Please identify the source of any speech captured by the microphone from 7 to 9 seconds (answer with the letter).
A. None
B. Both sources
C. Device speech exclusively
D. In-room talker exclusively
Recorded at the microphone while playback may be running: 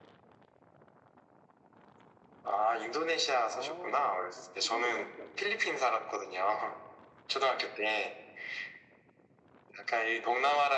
C